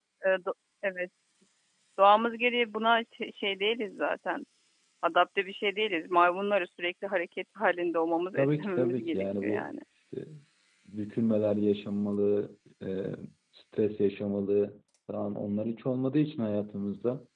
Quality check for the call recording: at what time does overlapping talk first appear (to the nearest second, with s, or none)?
8 s